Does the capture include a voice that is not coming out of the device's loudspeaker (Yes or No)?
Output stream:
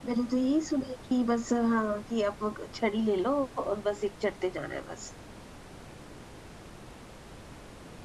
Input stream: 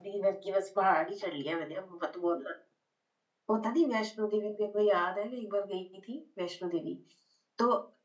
Yes